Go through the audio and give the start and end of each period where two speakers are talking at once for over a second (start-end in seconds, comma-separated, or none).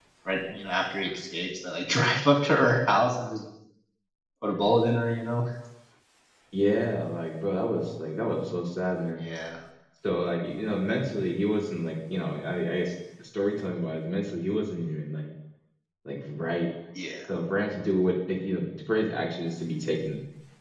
none